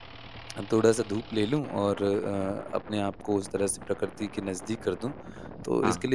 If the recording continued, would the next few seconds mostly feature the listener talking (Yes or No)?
No